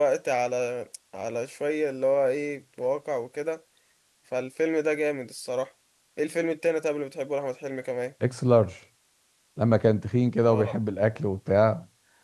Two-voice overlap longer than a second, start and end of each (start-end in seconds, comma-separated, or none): none